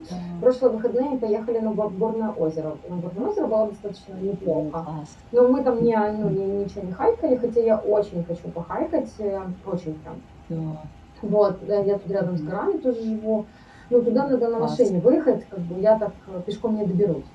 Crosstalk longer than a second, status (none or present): none